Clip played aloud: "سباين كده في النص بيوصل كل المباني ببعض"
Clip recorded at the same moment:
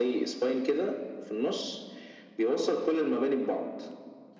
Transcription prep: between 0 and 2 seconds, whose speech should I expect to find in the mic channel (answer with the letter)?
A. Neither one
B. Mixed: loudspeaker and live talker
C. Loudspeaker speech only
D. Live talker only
C